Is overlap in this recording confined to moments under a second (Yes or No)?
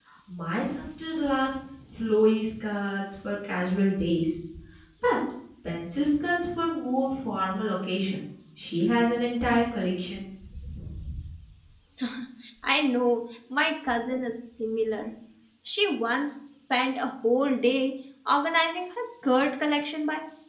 Yes